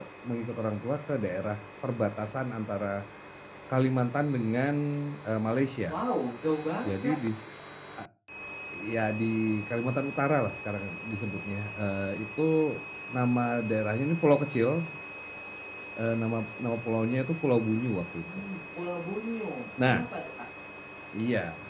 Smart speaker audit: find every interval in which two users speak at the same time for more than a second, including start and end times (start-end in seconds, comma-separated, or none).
none